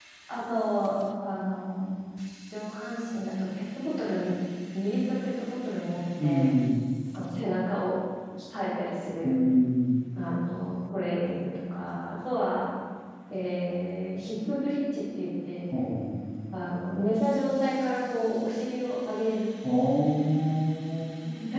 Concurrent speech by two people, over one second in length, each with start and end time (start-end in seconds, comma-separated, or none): none